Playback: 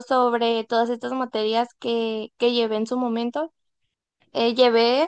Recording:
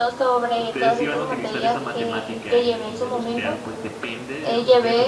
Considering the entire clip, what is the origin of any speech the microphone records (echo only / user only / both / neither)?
both